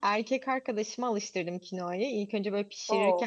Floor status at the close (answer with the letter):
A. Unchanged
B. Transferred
A